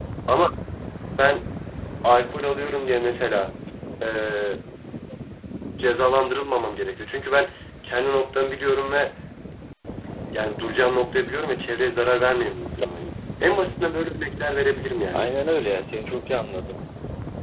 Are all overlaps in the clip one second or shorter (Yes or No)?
Yes